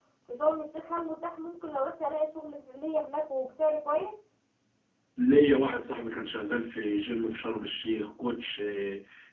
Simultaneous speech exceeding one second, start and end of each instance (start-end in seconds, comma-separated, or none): none